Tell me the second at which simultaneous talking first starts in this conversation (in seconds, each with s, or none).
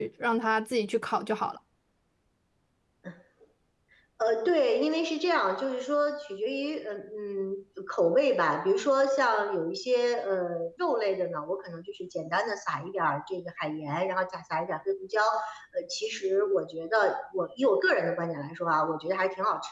none